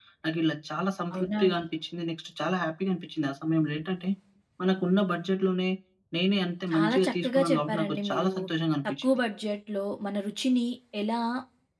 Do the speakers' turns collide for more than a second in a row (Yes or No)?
Yes